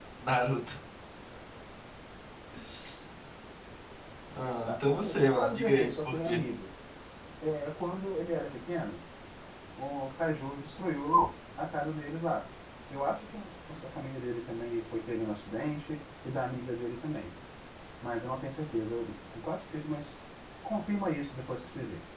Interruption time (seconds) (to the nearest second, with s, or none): 5 s